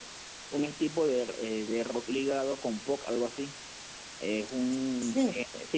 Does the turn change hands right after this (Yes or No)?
No